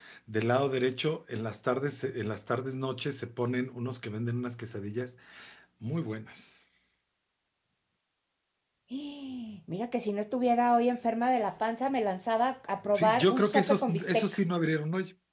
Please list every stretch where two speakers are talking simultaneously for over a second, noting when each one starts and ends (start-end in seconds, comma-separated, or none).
12.9-14.2